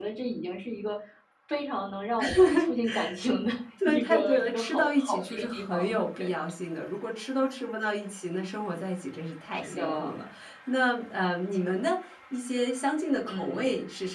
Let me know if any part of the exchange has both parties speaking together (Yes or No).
Yes